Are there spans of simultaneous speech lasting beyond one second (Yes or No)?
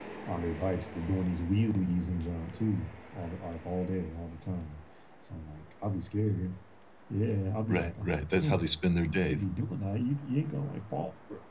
Yes